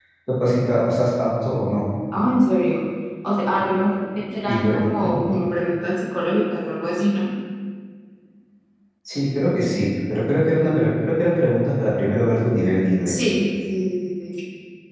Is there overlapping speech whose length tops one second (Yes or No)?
No